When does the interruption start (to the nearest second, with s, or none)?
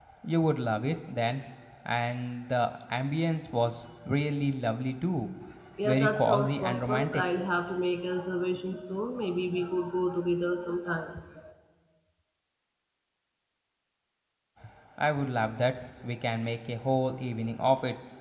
6 s